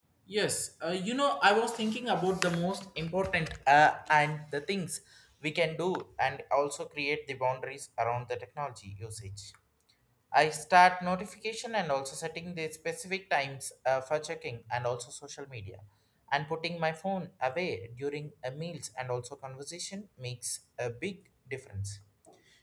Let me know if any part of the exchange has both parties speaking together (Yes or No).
No